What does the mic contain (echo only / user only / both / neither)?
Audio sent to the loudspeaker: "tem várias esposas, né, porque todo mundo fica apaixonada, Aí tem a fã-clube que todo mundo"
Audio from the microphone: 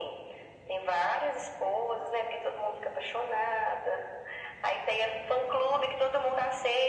echo only